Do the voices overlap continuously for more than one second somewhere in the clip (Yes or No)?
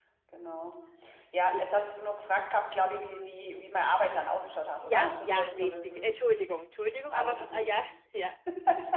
Yes